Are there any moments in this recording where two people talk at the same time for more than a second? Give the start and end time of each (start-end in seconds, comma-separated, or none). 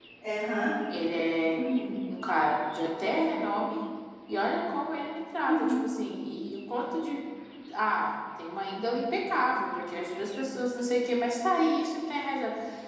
none